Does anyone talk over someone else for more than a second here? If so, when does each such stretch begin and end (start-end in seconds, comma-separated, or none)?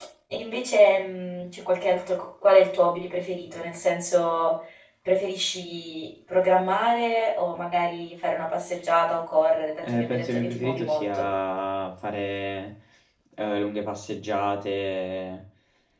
9.8-11.1